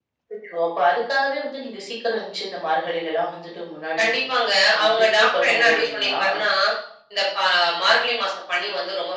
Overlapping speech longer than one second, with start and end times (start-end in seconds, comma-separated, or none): 4.8-6.2